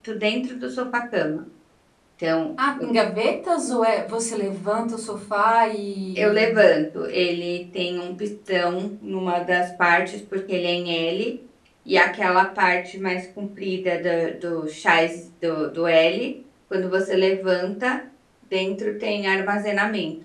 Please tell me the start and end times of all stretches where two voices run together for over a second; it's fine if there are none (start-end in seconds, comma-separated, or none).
none